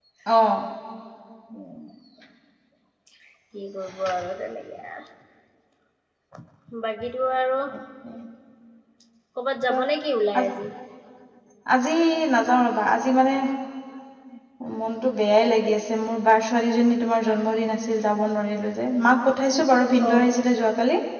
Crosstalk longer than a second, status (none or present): none